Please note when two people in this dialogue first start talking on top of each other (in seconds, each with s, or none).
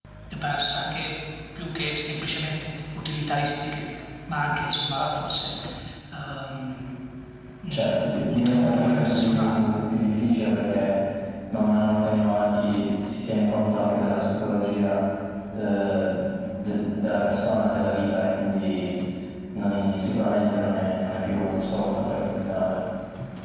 7.7 s